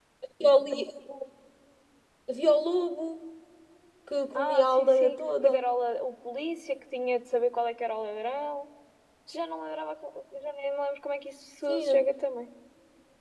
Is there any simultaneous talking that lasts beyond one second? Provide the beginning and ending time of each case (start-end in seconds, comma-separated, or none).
4.4-5.6